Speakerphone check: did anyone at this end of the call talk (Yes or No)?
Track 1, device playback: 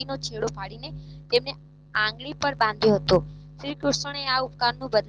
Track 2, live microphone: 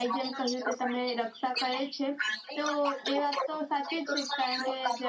Yes